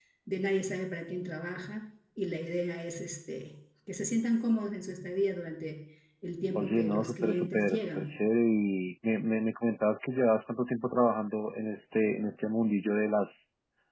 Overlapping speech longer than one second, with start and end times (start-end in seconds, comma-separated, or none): 6.5-8.2